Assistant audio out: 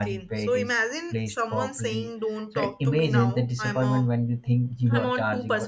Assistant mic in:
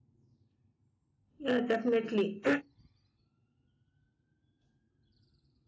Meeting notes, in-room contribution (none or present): present